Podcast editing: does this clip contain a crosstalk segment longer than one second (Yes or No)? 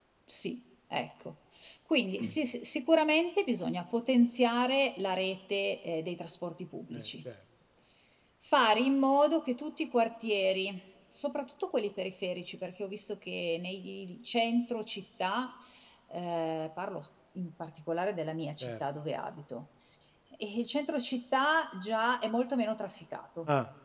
No